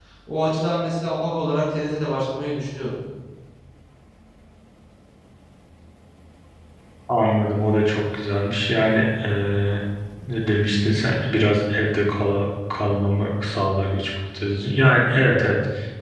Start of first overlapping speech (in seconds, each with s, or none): none